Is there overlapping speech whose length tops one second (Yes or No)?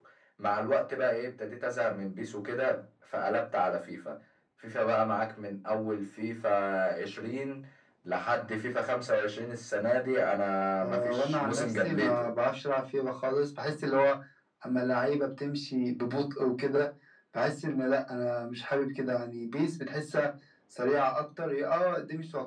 Yes